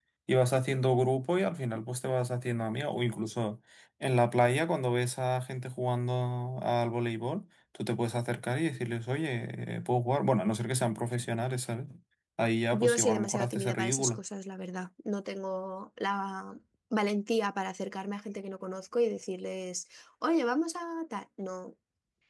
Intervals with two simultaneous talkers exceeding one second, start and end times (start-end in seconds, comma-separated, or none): 12.7-14.2